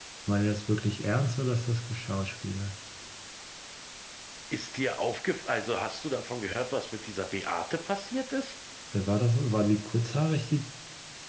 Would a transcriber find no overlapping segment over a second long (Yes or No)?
Yes